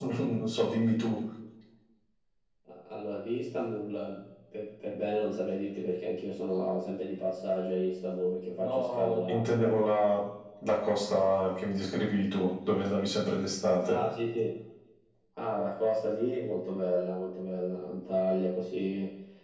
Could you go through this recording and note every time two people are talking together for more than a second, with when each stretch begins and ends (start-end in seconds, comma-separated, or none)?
8.6-9.9